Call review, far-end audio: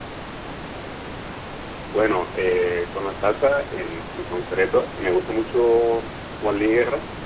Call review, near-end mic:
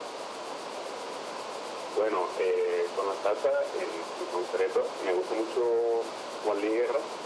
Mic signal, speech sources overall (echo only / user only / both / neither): echo only